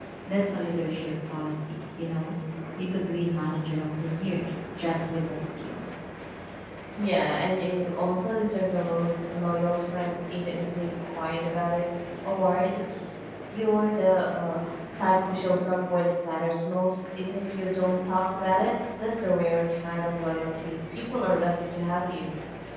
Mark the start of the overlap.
none

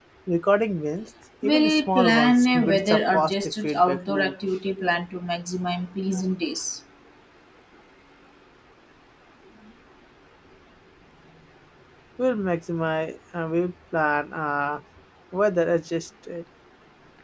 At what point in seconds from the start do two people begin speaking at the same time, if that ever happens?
1.4 s

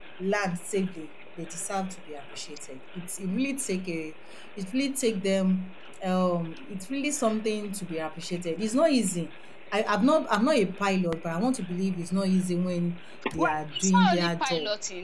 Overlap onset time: 13.2 s

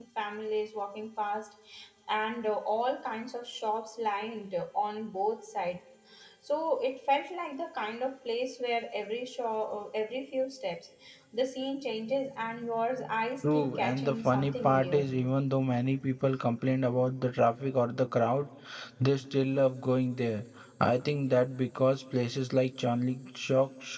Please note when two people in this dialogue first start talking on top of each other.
13.4 s

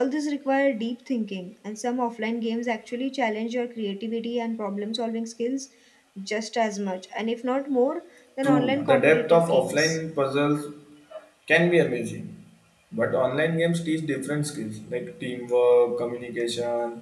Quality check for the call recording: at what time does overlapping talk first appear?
8.4 s

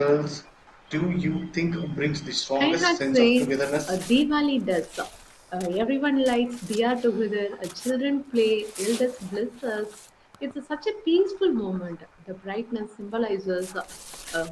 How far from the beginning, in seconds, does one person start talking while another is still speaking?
2.6 s

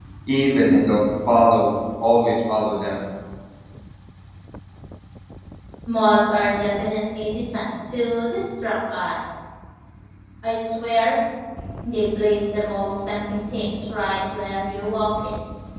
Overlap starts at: none

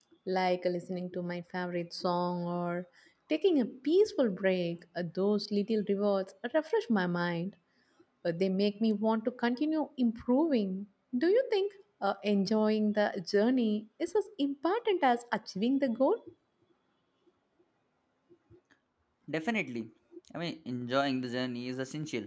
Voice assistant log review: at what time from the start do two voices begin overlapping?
none

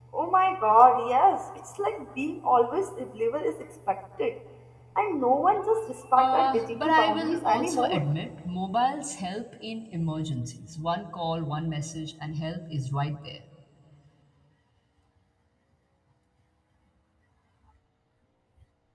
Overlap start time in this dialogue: 6.2 s

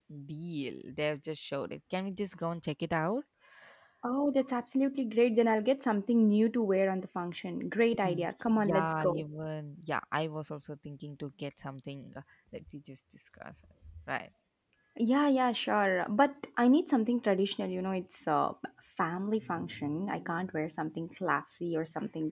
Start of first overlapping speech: 7.9 s

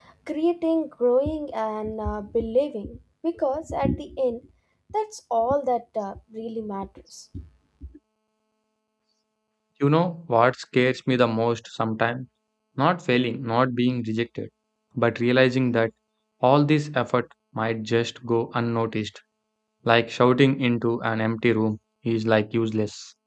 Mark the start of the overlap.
none

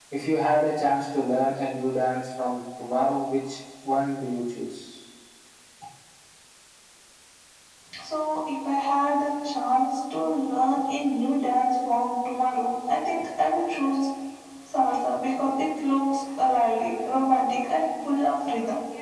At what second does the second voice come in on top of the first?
none

